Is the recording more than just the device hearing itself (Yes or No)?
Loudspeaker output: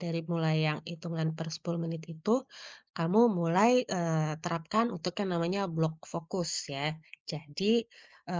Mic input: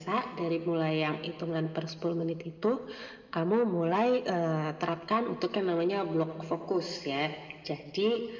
No